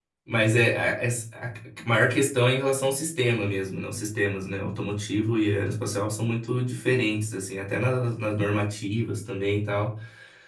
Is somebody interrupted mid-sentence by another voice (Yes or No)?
No